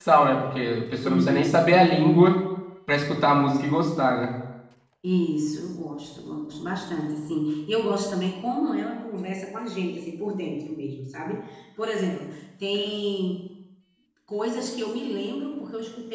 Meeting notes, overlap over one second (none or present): none